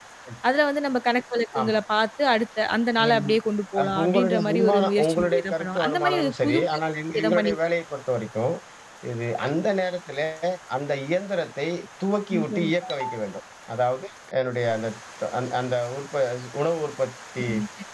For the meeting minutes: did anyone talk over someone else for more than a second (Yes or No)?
Yes